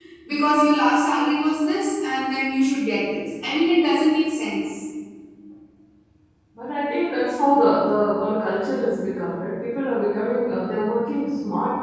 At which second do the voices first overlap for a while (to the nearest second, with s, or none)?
none